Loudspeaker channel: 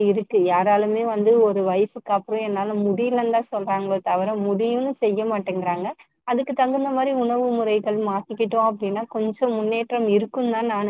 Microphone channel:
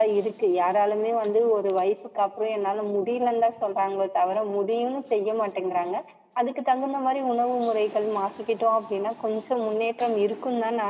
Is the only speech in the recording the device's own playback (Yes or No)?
Yes